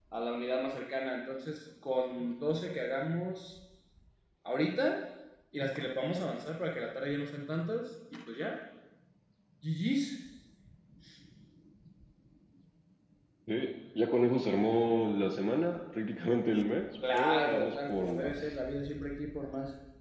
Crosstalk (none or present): present